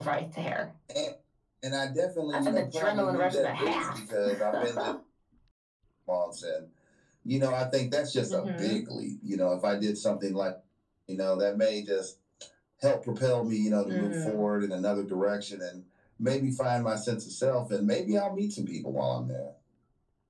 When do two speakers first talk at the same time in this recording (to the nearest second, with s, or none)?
2 s